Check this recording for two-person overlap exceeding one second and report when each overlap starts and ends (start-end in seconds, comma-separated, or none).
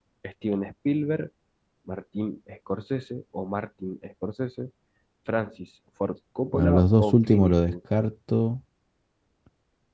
6.5-7.7